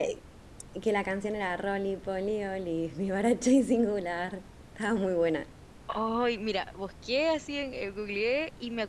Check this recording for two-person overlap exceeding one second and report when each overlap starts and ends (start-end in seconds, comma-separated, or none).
none